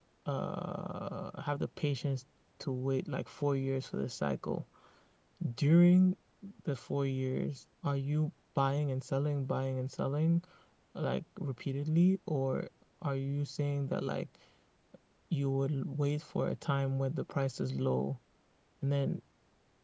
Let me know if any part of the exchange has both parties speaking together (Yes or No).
No